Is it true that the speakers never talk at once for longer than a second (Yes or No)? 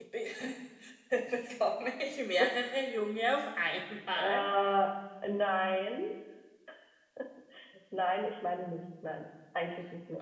Yes